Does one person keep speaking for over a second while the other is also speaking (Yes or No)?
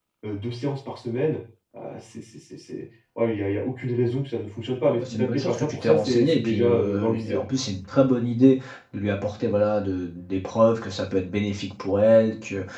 Yes